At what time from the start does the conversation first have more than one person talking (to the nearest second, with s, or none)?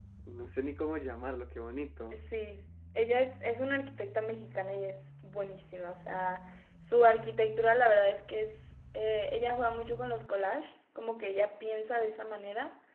none